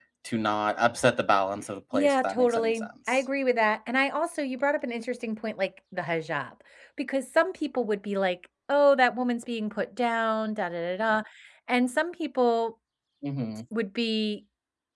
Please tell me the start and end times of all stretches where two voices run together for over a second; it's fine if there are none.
1.9-3.2

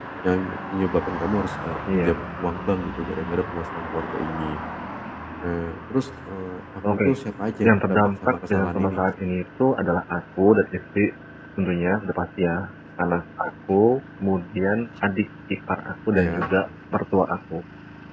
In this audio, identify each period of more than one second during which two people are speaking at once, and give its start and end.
7.7-9.0

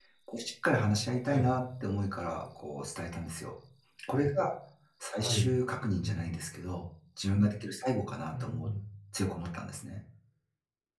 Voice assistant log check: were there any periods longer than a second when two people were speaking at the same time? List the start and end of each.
none

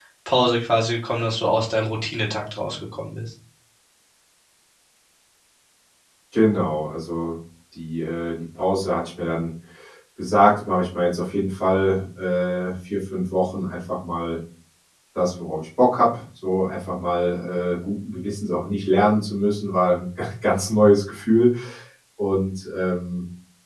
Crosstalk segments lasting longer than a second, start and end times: none

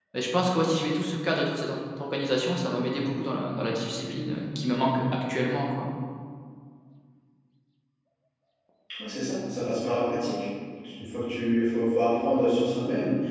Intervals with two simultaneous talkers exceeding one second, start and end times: none

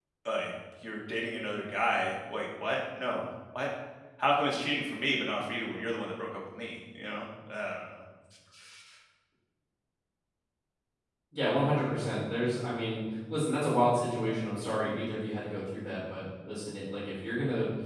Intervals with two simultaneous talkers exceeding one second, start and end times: none

